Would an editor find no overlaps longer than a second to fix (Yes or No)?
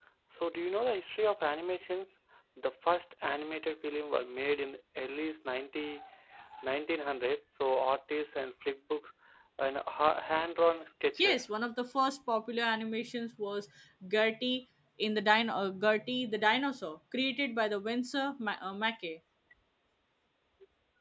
Yes